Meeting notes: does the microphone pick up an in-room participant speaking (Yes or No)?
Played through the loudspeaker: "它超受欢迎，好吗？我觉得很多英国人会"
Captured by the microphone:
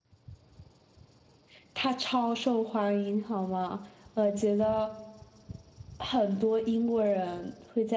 No